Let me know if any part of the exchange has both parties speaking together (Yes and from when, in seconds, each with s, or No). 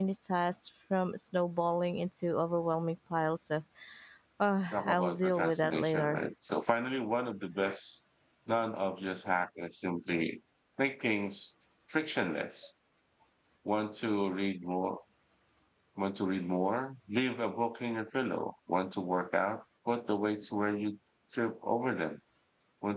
Yes, from 4.7 s